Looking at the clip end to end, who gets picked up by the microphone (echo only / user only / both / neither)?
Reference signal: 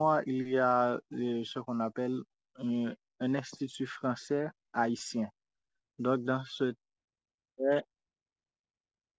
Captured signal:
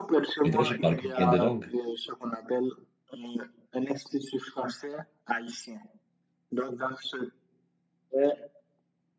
both